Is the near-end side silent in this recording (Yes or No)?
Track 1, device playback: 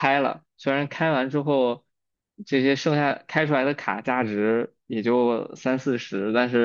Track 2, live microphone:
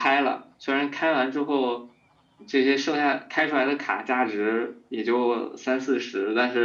Yes